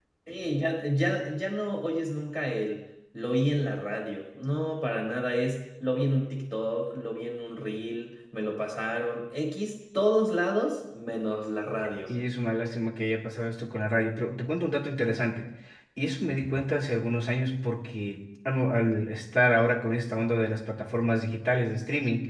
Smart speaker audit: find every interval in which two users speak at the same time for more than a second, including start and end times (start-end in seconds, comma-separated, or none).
none